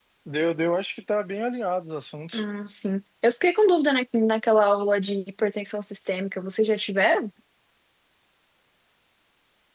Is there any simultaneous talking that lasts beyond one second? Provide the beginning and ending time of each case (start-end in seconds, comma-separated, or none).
none